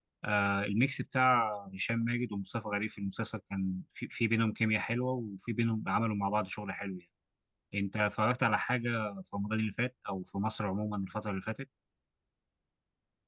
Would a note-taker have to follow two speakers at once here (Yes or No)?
No